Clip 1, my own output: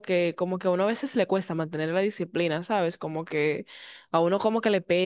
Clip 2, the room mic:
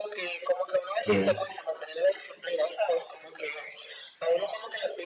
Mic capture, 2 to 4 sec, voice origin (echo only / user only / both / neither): echo only